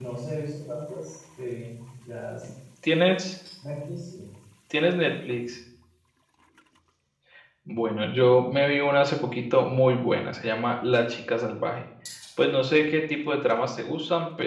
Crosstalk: none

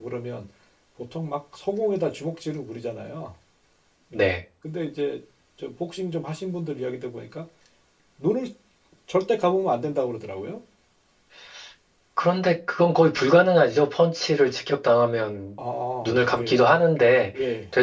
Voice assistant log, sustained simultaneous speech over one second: none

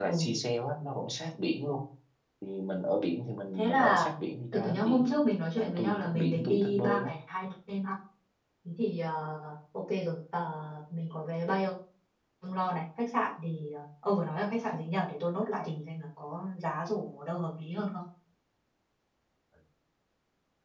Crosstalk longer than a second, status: present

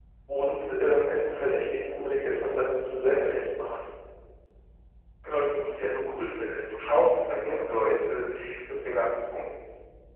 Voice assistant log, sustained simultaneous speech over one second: none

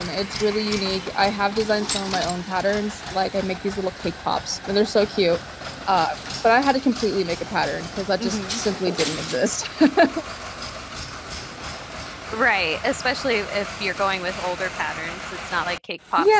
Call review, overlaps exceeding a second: none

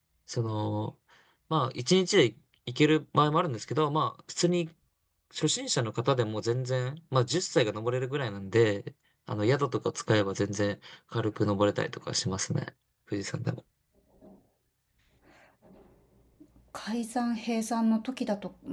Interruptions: none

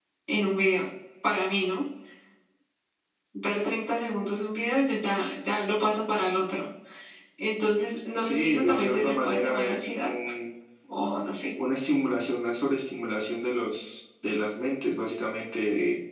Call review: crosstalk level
present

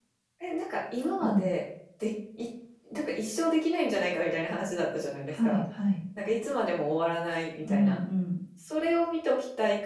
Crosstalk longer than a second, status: none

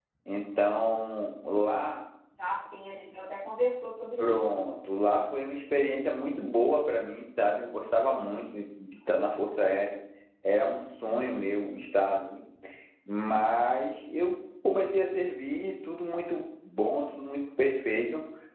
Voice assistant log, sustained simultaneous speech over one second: none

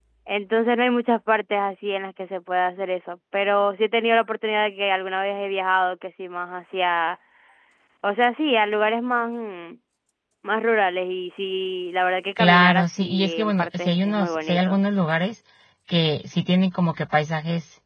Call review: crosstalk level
present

